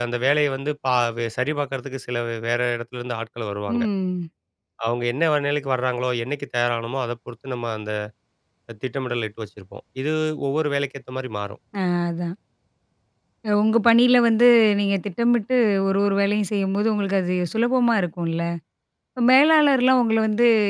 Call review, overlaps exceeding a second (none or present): none